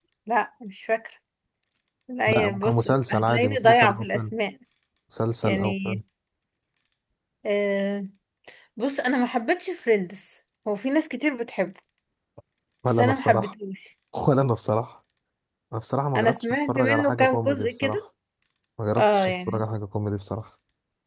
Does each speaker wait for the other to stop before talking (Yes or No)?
No